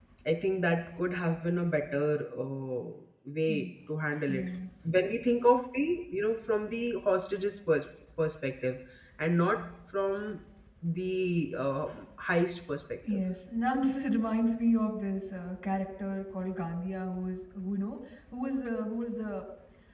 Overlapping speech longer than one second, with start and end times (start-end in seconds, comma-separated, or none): none